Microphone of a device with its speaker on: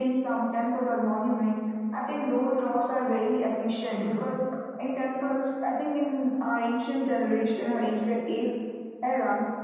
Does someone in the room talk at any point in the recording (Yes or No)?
No